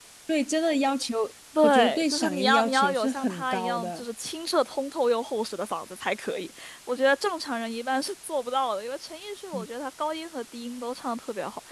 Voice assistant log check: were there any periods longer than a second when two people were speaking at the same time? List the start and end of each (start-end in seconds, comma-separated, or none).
1.6-4.0